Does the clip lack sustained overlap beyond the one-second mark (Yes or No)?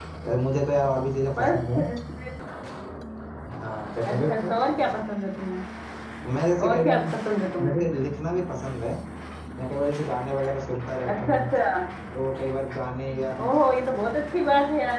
Yes